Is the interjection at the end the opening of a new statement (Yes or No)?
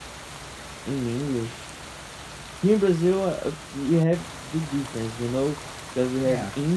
No